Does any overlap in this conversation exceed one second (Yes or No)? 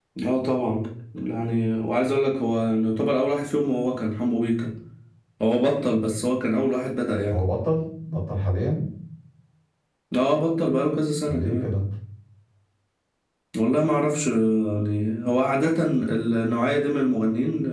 No